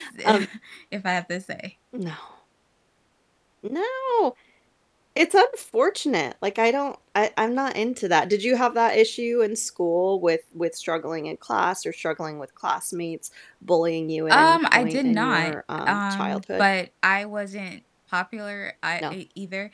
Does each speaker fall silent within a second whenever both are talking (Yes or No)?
No